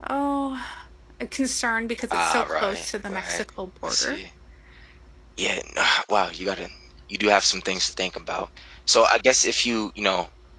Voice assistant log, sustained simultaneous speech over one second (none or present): present